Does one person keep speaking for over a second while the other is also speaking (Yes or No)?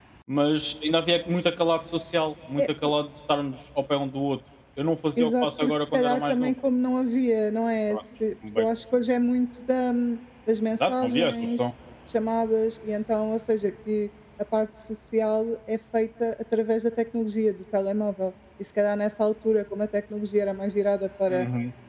Yes